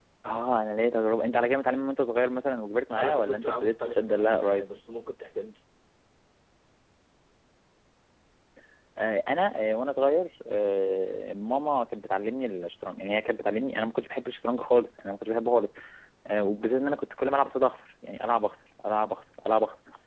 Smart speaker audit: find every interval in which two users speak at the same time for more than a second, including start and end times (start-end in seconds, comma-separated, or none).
2.9-4.6